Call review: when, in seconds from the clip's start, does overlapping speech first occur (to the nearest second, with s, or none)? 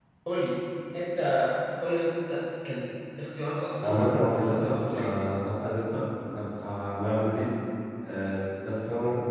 4 s